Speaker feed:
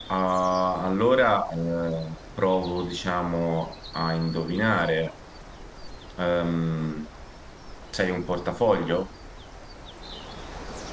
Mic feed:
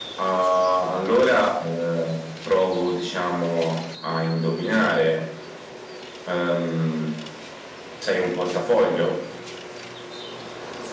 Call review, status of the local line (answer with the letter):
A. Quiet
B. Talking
A